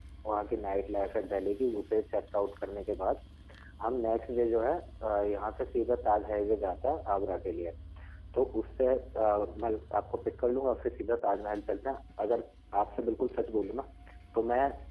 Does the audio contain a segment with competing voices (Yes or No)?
No